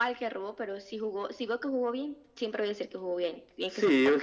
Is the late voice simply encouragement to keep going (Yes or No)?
No